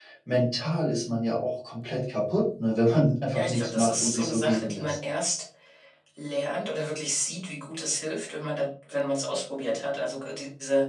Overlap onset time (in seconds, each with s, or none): 3.3 s